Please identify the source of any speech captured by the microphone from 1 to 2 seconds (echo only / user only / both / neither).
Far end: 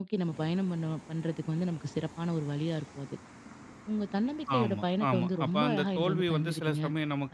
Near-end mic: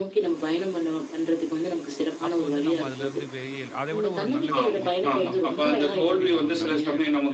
echo only